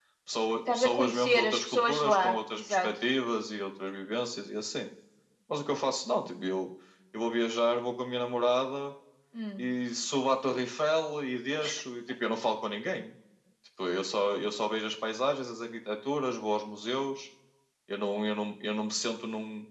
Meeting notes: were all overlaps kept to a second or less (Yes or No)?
No